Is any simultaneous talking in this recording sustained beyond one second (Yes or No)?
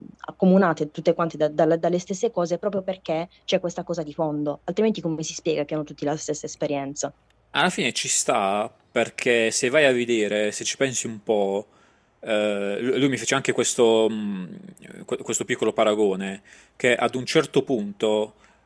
No